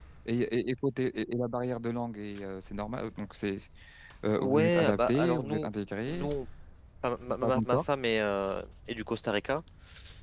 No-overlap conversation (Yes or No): No